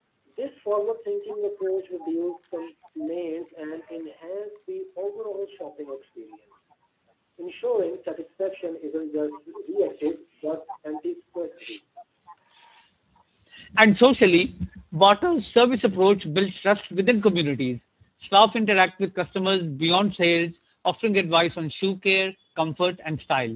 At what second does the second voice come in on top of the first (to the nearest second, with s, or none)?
none